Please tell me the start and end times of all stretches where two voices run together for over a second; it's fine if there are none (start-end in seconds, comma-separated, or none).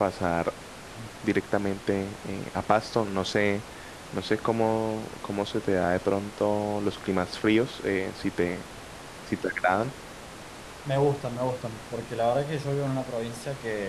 none